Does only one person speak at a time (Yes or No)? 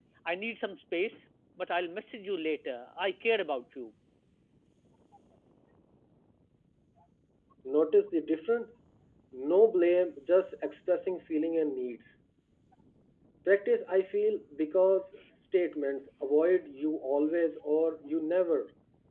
Yes